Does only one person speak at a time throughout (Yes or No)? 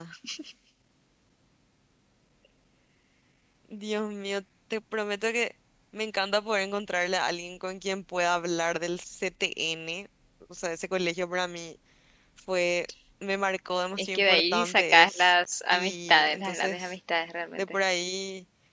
No